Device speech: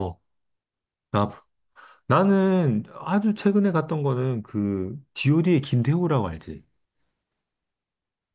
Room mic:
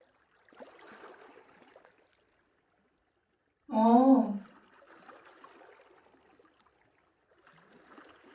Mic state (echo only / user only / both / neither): user only